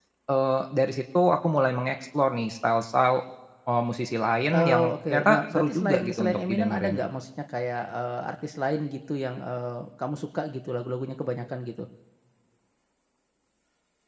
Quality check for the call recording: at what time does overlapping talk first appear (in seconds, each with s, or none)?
4.5 s